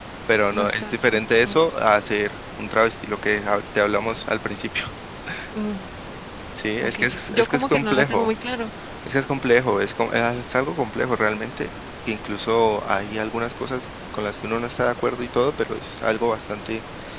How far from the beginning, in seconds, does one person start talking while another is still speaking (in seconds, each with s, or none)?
0.5 s